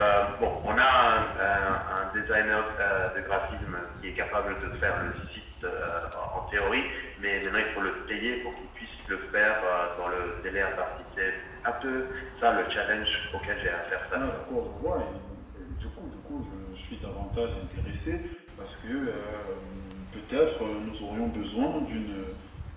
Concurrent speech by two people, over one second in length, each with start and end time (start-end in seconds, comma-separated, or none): none